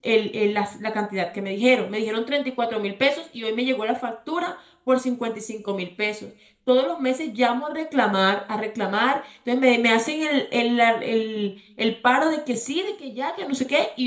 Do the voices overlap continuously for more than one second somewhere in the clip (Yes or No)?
No